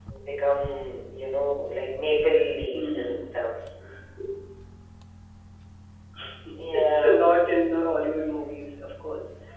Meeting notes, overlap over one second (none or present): none